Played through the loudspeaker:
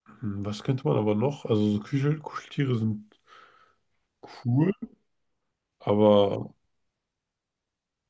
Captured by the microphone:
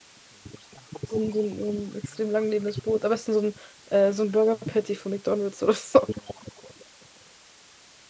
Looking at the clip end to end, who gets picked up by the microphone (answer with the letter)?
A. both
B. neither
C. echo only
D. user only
A